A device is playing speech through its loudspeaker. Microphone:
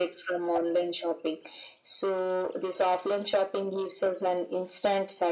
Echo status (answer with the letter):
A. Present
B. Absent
A